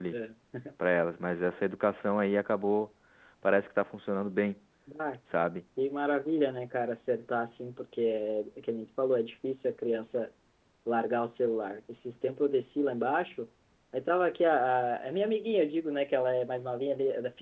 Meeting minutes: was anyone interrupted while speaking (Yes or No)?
No